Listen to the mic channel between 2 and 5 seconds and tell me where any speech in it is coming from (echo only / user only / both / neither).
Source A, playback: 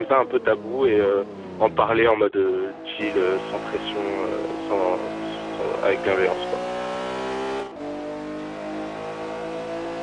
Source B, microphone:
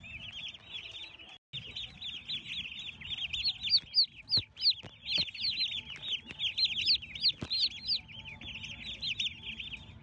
neither